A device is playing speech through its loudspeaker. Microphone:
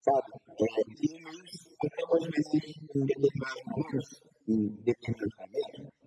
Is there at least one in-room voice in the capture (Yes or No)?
No